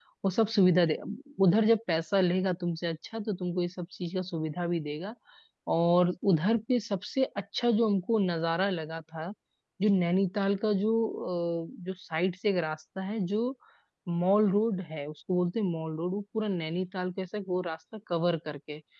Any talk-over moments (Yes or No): No